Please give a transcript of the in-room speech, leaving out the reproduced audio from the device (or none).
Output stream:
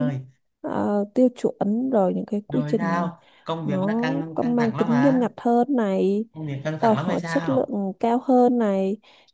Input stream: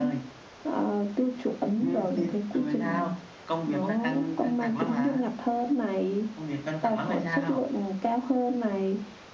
ừ, thì